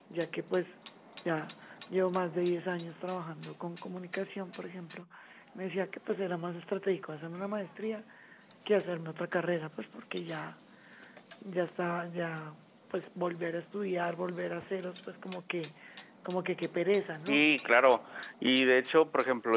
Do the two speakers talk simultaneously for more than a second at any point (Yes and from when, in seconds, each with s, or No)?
No